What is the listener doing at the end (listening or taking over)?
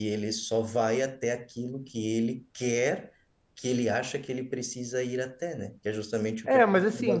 taking over